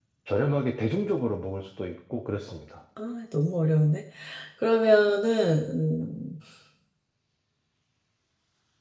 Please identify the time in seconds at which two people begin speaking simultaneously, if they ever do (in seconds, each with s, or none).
none